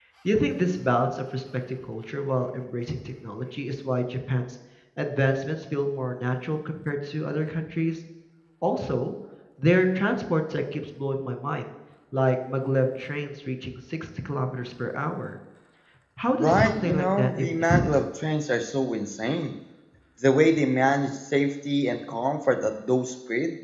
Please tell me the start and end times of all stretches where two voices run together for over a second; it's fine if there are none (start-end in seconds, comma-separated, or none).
16.3-18.0